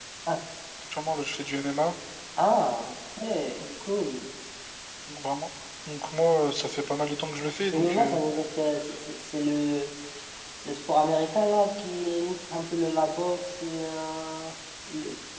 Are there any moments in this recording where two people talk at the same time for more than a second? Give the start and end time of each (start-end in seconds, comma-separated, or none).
none